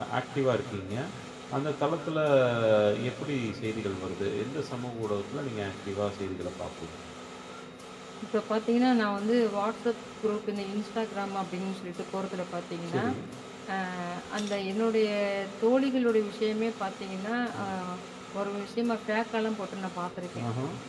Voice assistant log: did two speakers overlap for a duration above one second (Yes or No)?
No